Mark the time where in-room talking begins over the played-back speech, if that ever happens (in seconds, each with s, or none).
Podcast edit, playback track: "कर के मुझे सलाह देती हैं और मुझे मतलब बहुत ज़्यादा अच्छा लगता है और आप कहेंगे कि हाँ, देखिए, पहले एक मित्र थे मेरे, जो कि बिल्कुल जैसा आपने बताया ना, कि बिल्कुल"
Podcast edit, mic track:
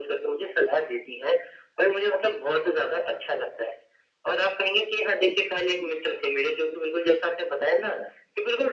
none